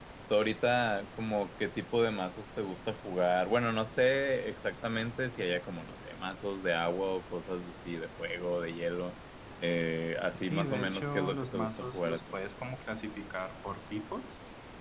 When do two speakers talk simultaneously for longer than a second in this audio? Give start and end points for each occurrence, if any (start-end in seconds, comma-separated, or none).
10.3-12.4